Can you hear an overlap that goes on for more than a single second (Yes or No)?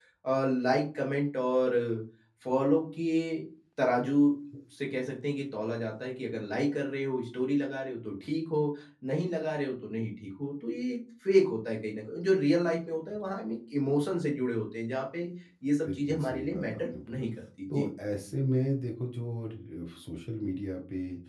Yes